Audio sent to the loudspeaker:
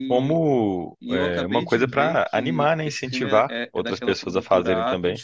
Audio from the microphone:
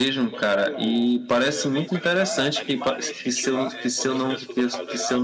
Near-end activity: present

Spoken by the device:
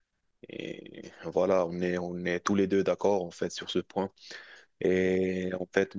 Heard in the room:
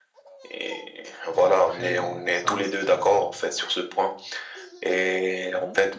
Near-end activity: present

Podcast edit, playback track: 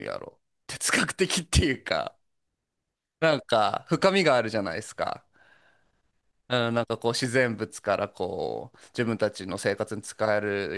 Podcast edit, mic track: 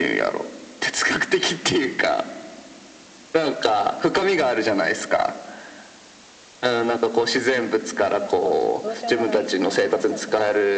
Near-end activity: present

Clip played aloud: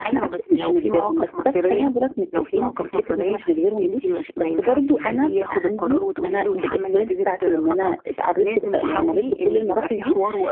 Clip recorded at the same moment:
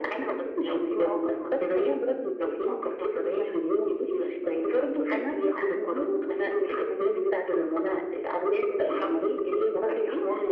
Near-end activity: none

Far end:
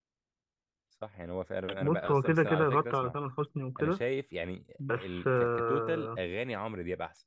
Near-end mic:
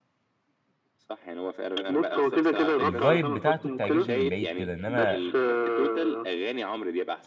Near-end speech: present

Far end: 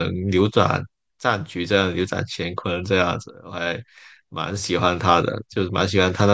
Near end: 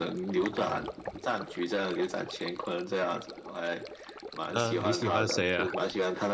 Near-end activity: present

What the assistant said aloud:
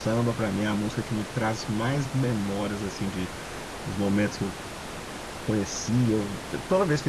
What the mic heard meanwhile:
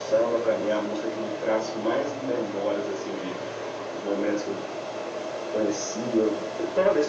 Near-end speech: none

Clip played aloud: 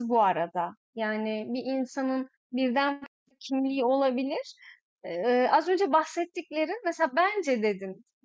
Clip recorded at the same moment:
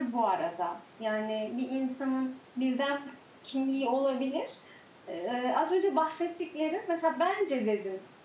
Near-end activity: none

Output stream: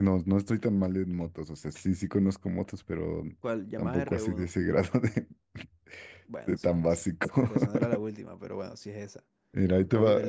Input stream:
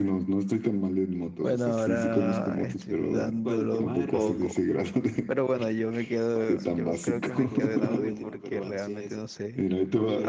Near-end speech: present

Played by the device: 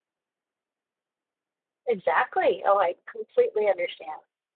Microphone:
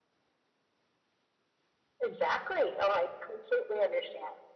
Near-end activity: none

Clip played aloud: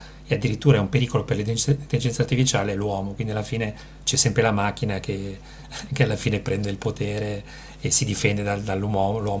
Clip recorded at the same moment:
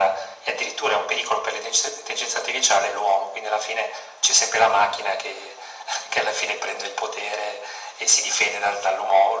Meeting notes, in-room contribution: none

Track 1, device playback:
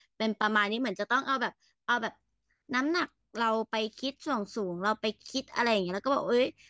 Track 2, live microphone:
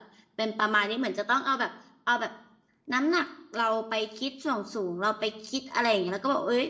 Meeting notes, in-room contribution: none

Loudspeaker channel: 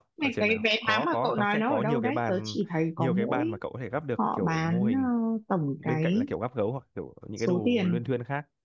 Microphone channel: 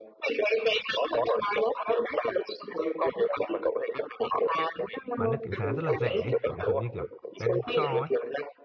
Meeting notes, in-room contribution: present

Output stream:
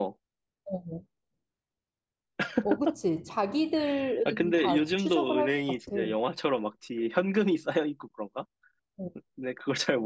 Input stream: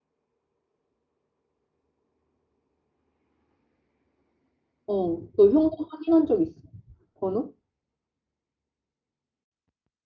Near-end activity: present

